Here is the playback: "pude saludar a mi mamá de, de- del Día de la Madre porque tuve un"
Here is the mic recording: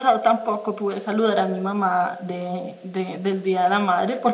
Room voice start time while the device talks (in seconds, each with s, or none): none